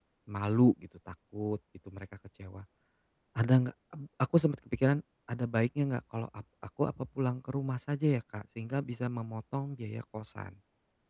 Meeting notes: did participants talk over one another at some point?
No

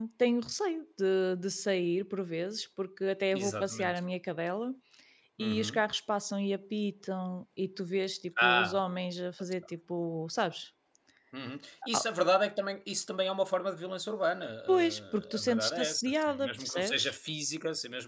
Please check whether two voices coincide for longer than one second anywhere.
Yes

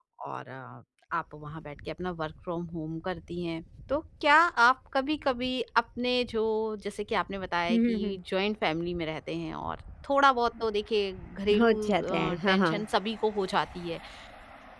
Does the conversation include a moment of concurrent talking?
Yes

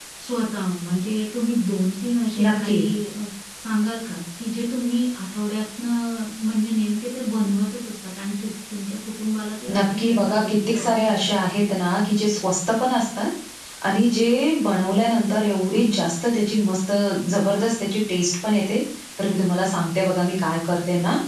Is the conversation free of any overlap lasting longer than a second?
No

